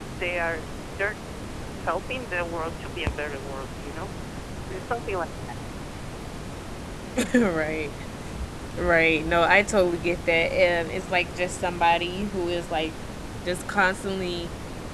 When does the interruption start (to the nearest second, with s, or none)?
none